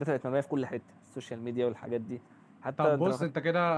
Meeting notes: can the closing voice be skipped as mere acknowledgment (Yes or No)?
No